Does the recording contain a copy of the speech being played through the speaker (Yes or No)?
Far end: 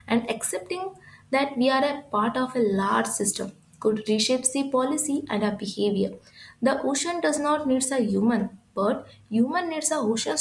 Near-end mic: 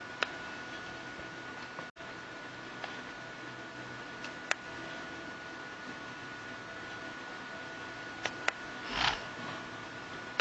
No